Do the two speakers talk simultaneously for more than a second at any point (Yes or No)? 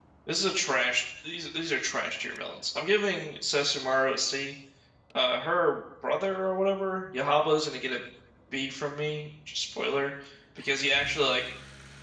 No